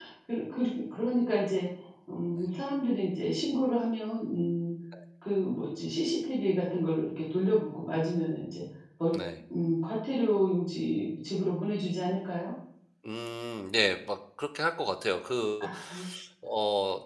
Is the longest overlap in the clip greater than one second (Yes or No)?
No